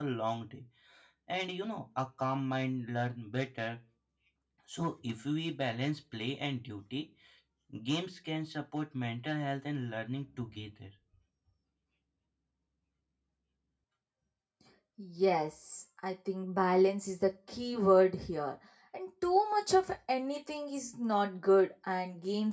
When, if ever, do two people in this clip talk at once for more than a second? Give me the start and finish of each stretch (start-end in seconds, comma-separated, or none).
none